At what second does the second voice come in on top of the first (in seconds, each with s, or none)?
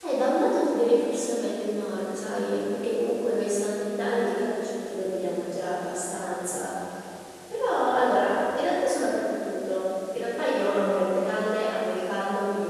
none